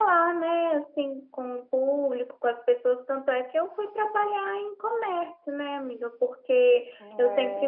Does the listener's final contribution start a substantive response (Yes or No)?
No